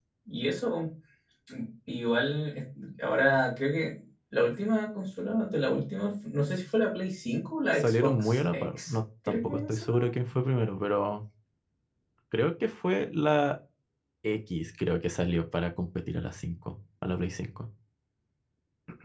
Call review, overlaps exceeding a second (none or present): present